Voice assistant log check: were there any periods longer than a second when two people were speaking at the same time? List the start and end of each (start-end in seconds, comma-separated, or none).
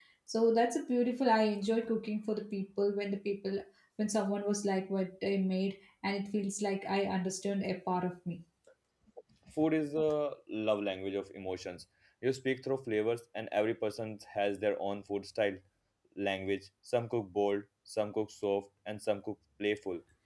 none